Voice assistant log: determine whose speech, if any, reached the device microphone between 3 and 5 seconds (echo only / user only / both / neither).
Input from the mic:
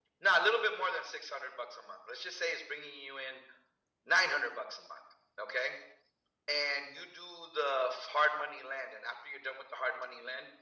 echo only